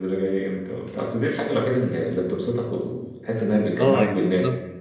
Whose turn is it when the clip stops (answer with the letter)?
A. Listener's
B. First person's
A